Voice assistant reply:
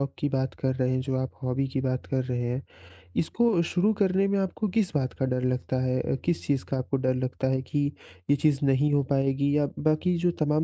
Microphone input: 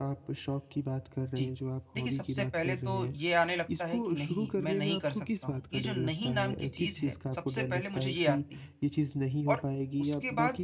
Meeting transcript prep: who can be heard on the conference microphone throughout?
both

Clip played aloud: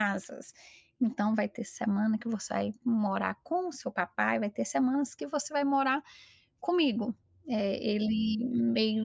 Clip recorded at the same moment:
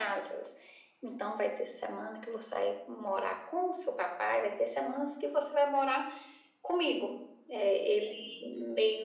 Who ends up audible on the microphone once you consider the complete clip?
echo only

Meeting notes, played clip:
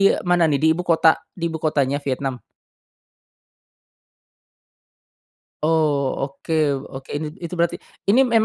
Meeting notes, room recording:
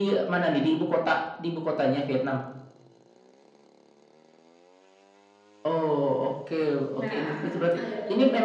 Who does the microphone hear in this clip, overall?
both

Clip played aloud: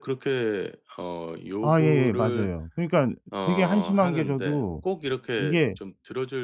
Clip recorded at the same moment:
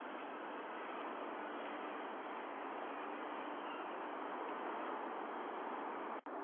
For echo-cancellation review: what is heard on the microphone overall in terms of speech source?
neither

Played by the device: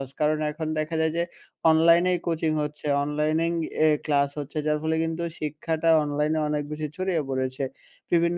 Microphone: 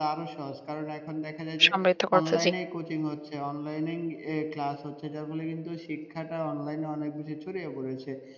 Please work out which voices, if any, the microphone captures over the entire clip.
both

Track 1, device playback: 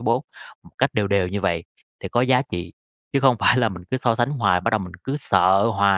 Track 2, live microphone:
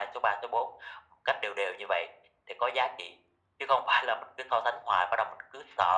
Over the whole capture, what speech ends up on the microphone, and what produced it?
echo only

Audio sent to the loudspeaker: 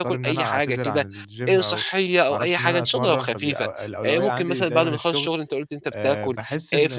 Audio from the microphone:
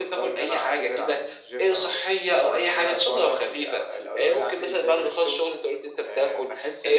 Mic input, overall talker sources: echo only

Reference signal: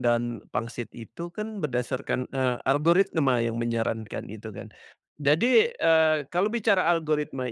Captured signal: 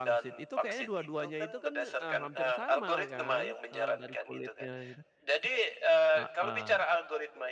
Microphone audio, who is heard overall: both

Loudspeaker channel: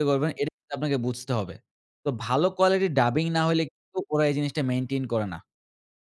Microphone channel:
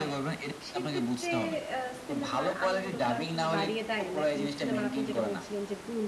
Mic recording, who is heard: both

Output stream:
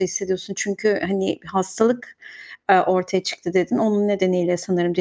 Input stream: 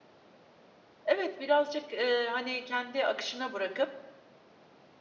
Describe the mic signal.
user only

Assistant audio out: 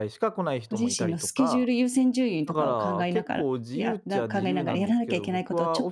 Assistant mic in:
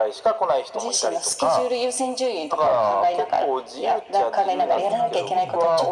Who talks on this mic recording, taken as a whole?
both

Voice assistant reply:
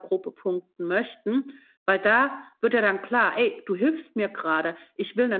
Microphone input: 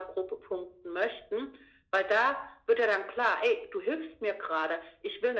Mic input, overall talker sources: echo only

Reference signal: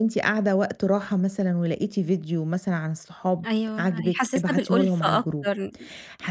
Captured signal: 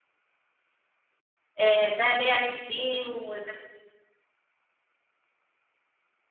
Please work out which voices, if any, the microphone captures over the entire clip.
user only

